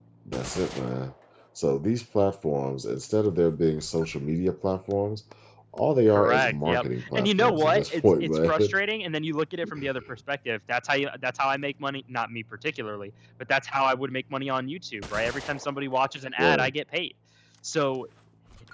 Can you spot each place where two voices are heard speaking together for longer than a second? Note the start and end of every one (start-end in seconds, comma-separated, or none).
6.1-8.7